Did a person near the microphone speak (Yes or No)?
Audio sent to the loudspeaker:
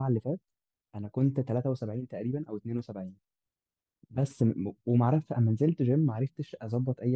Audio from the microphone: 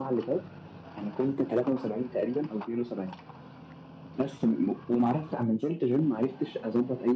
No